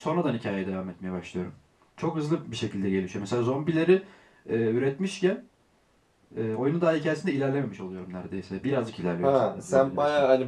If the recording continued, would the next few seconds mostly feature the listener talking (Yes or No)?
Yes